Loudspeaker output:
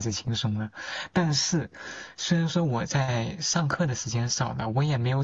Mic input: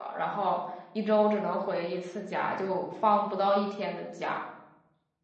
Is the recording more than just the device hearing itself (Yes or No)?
Yes